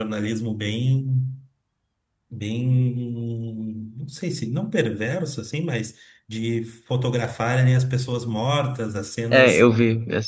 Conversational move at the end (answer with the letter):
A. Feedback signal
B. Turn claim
B